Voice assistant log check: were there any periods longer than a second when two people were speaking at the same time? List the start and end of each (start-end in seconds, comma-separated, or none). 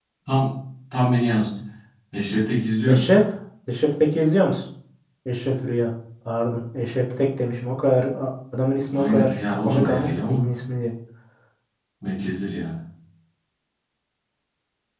8.9-10.5